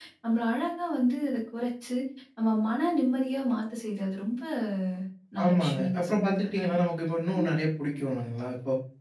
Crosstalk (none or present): present